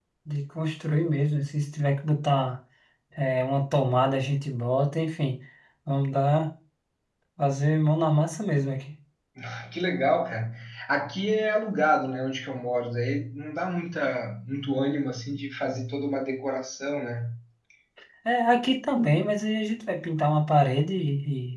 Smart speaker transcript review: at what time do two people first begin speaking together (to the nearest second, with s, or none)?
none